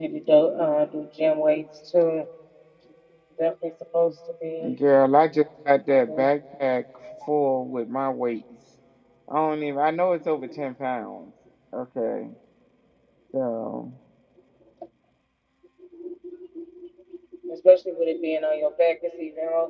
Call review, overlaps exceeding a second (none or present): none